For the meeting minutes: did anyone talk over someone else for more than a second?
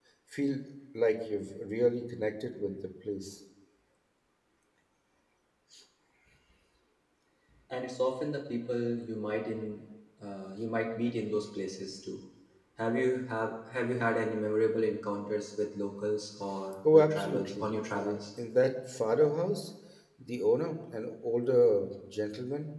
Yes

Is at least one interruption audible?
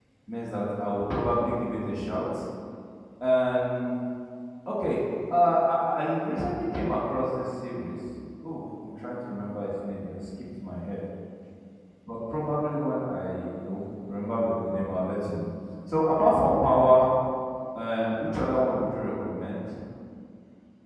No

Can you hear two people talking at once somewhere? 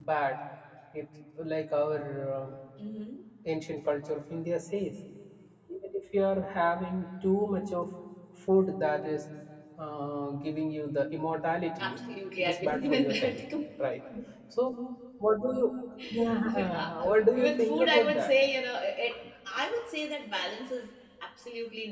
Yes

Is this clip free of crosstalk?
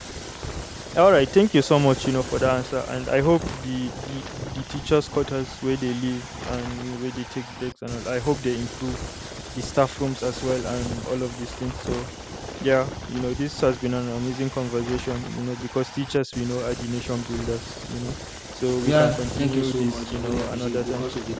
No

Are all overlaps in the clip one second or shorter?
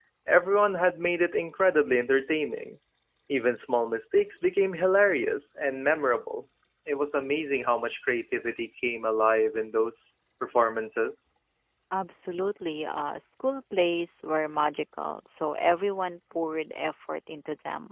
Yes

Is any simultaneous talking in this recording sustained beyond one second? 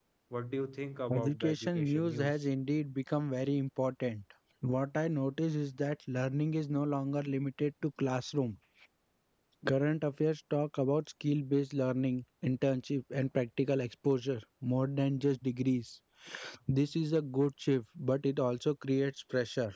Yes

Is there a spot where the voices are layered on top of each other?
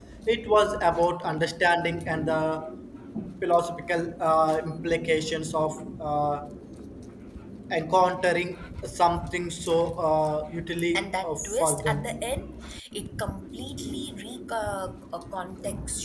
Yes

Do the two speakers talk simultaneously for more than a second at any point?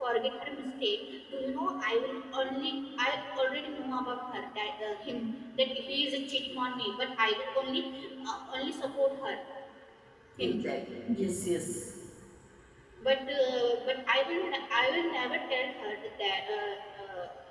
No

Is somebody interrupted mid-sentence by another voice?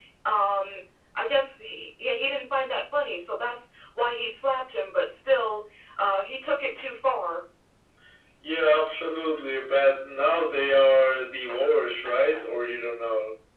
No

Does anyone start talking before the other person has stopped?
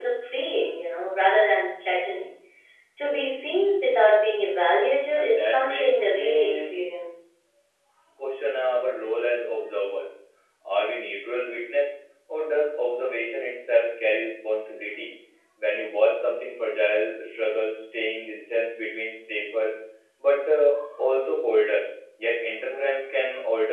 Yes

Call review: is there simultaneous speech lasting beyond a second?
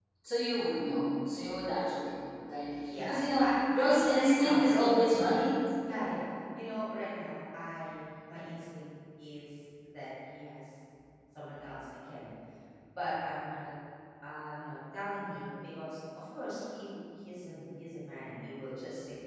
Yes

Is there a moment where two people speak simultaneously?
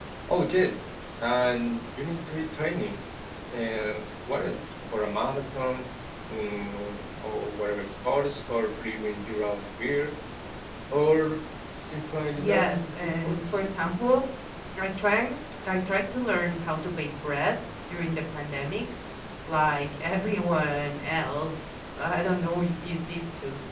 Yes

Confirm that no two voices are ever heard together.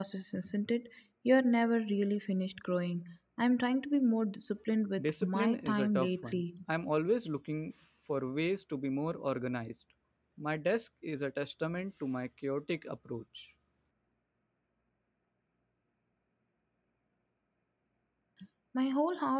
No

